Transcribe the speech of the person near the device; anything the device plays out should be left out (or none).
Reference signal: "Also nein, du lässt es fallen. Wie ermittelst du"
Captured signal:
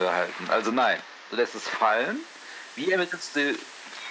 none